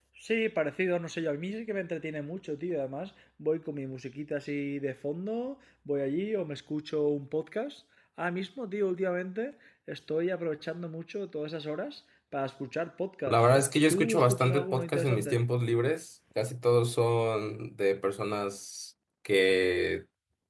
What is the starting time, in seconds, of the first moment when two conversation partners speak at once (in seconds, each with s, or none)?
13.3 s